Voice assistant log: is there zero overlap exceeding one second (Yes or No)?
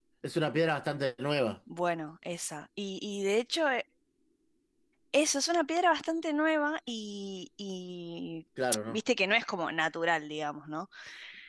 Yes